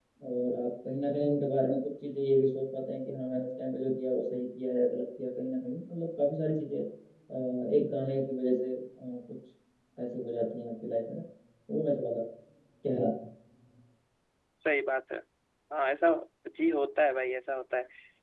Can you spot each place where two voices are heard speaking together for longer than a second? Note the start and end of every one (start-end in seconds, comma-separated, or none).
none